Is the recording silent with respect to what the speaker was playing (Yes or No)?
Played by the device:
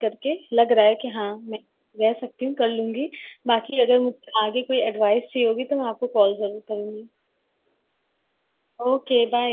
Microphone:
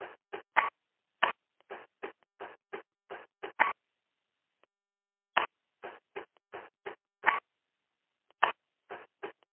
Yes